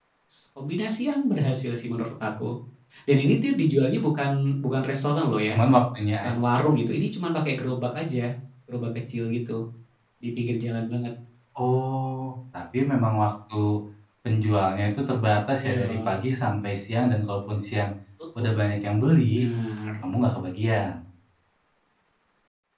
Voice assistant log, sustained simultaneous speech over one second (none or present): none